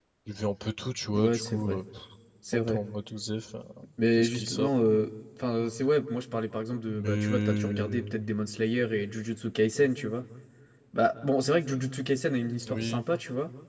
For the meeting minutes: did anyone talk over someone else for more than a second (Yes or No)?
Yes